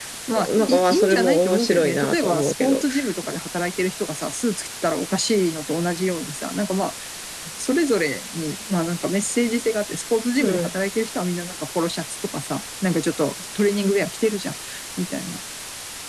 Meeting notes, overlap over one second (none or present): present